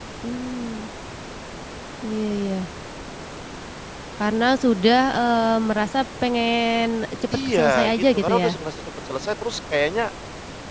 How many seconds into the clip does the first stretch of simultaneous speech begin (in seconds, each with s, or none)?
7.3 s